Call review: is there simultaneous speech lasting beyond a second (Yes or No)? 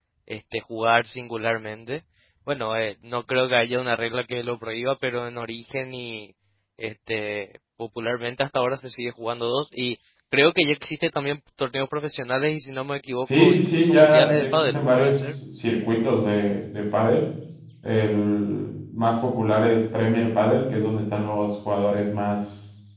Yes